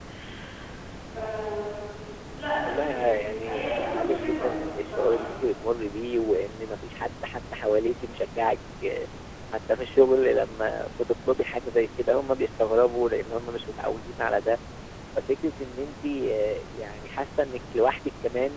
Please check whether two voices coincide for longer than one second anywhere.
Yes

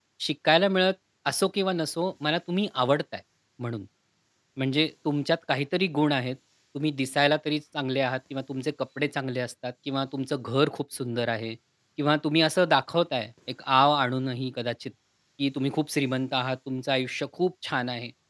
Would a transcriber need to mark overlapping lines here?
No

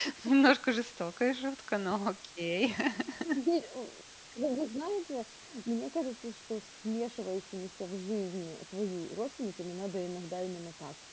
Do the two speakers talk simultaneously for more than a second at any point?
No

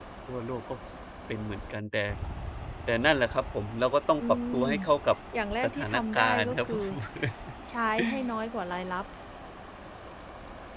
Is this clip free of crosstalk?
No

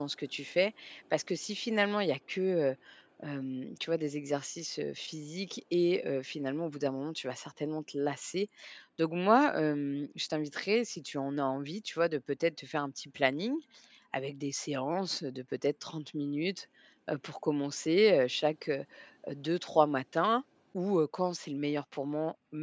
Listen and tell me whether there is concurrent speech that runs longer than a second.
No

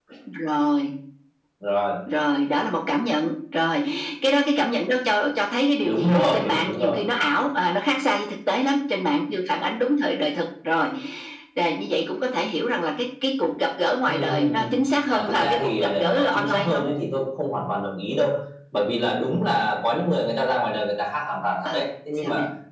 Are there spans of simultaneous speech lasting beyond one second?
Yes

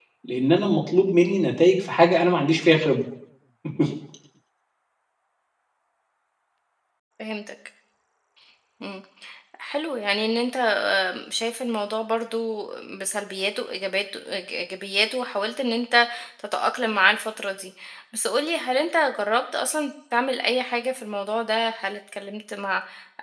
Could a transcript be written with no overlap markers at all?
Yes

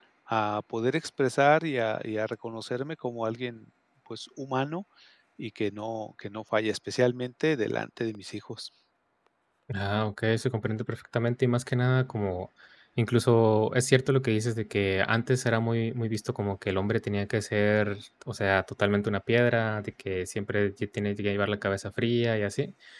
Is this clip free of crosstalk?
Yes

